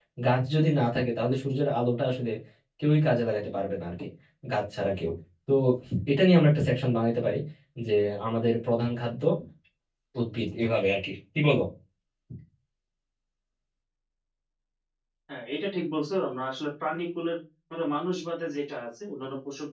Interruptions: none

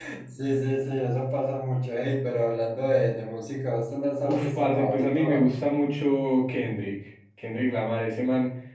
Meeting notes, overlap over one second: present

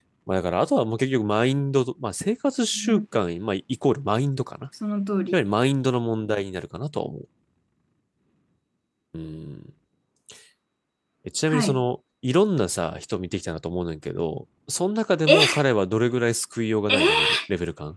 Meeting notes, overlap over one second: none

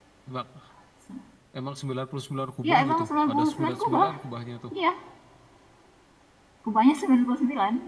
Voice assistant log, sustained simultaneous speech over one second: present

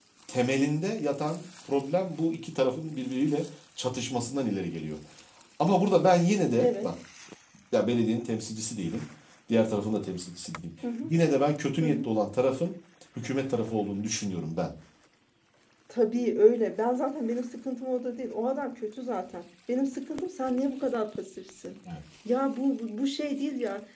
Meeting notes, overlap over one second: none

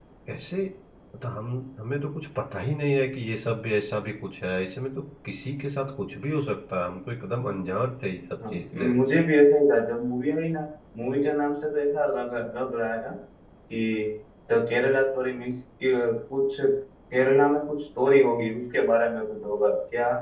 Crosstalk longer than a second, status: none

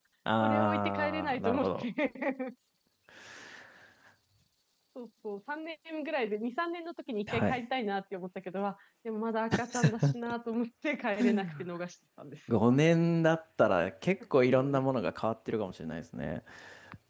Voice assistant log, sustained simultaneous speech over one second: present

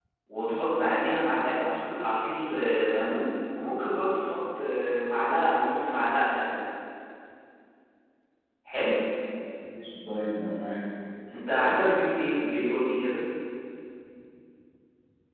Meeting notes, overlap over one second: none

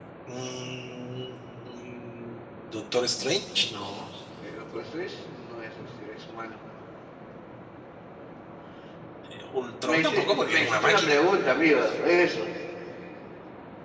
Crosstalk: present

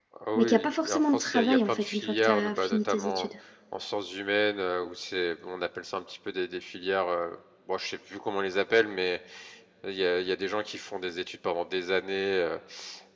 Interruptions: present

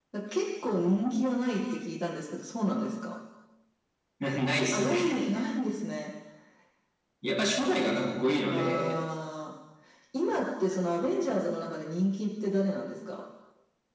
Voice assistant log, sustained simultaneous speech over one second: none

